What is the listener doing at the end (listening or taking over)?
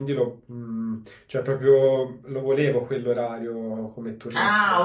taking over